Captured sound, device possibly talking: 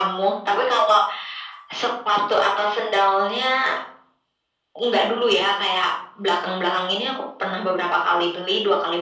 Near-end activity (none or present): none